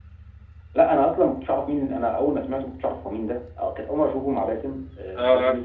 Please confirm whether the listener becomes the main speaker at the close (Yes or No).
No